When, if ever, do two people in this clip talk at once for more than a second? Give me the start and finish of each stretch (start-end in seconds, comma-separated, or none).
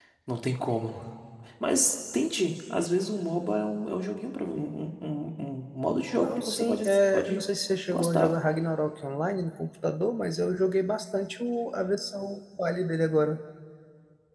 6.2-7.4